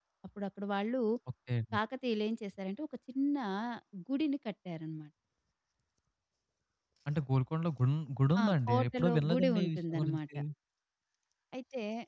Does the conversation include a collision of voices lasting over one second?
Yes, from 8.3 s

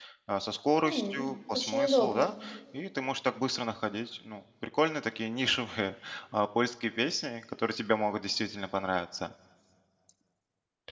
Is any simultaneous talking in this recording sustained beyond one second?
Yes, from 0.8 s

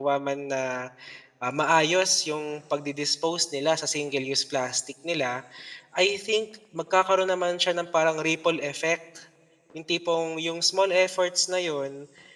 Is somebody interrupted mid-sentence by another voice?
No

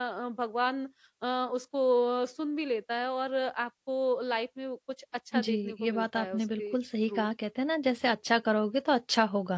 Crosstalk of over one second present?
Yes, from 5.3 s

